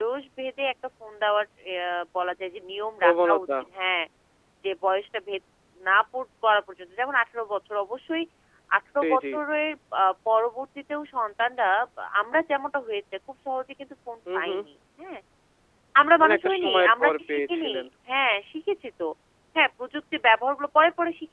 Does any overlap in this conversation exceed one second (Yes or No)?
Yes